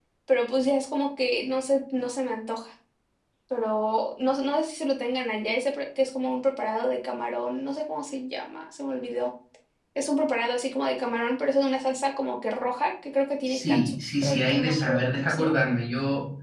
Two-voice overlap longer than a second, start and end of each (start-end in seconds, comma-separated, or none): 13.5-15.6